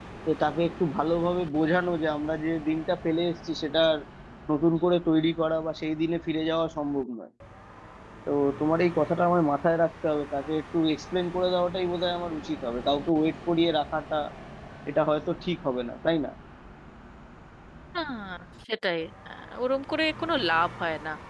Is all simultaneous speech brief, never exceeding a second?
Yes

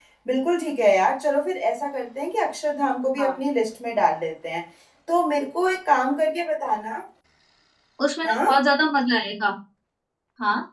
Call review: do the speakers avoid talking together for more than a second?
Yes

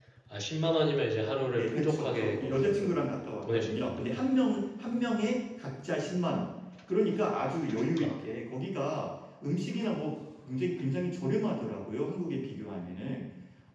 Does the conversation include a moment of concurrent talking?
Yes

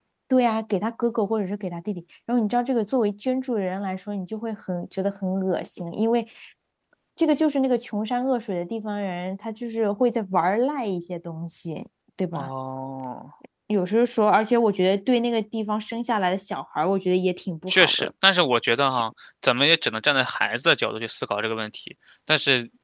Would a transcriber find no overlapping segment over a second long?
Yes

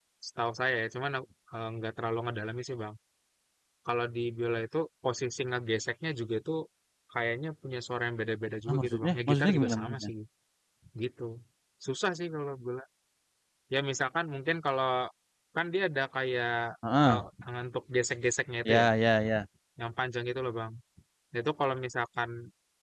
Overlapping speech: Yes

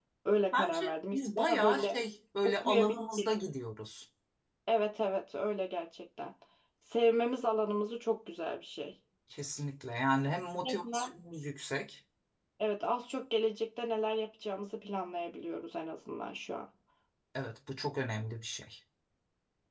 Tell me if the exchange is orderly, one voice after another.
No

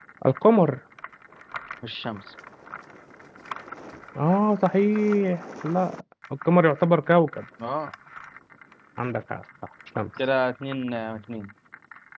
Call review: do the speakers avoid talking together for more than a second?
Yes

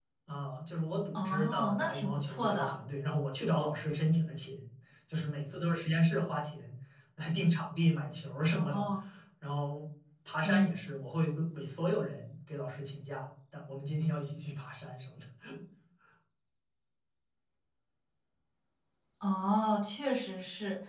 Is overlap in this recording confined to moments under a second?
No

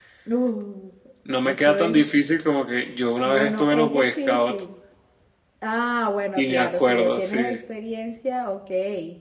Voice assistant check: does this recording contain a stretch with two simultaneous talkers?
Yes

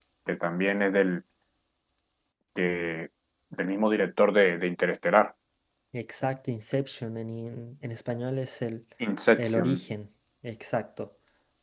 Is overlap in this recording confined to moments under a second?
Yes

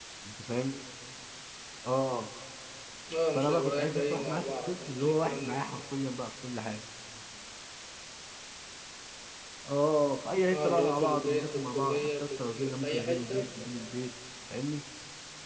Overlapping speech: Yes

